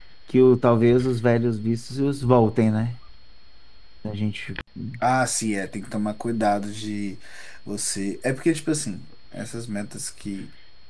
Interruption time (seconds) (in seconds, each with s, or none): none